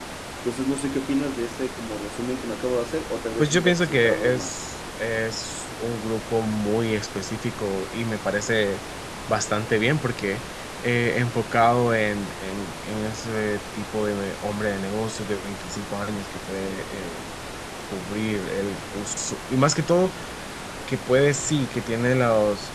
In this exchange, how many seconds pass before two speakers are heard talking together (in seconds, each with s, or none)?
3.4 s